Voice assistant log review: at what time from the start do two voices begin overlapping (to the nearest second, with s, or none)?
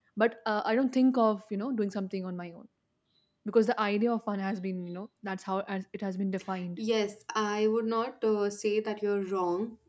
none